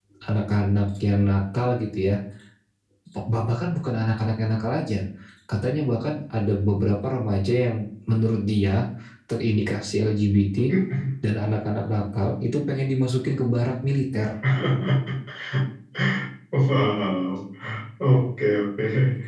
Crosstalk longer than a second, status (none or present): none